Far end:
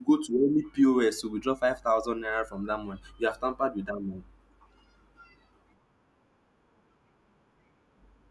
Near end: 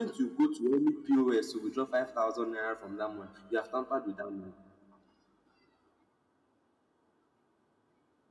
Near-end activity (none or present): none